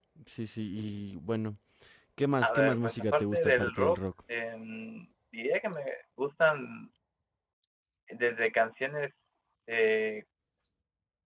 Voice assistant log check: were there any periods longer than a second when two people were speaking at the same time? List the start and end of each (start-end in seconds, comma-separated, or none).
2.4-4.0